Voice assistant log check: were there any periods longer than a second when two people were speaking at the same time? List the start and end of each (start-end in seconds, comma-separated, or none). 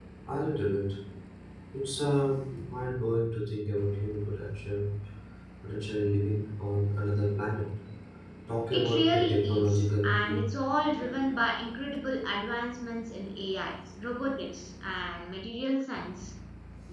8.7-10.4